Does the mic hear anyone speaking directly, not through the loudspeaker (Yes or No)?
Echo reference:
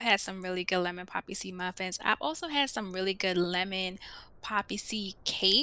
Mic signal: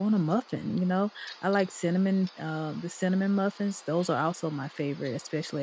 Yes